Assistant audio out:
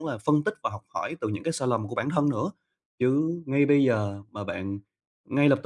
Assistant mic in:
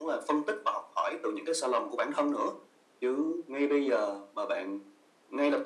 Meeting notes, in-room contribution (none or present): none